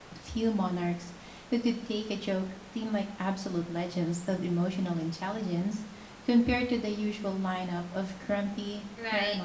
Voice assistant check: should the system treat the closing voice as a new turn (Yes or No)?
Yes